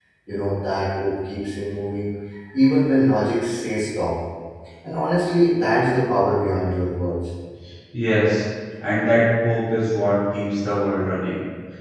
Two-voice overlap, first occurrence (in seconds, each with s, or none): none